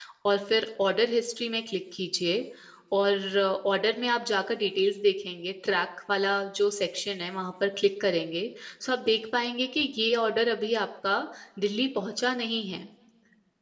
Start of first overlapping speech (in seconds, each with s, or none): none